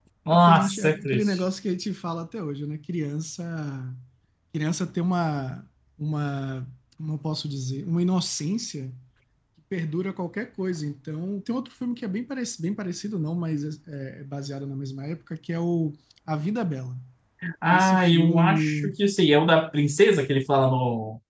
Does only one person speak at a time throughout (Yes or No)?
No